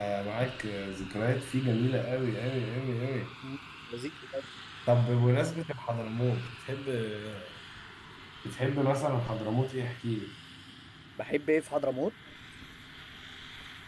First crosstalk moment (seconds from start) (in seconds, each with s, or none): none